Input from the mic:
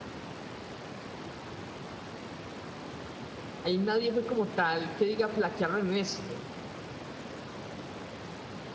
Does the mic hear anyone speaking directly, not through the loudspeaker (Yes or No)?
Yes